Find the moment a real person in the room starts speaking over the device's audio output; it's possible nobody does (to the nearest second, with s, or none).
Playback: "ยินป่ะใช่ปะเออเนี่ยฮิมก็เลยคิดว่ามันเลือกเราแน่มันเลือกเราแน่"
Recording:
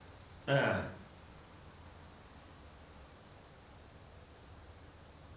0 s